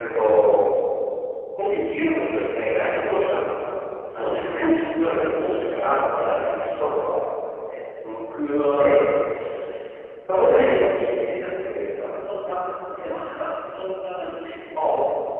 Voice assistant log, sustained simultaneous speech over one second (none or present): present